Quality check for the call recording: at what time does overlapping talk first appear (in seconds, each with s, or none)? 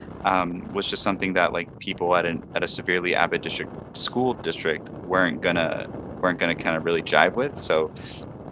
none